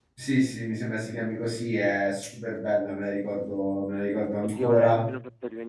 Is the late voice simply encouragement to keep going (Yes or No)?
No